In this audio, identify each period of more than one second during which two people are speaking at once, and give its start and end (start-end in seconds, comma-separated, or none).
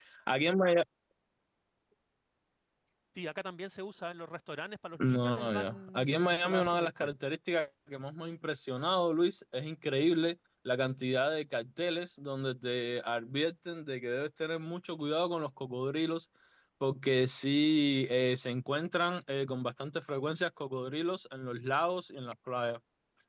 5.0-7.1